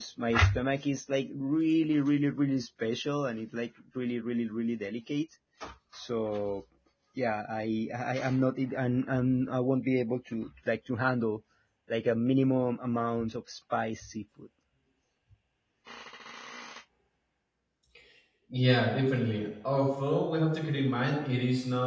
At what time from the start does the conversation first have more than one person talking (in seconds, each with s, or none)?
none